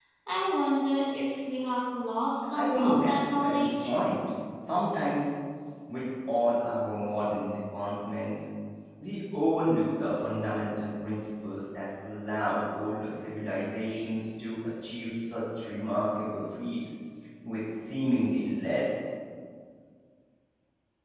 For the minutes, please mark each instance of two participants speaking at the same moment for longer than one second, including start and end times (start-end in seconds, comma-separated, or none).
2.5-3.9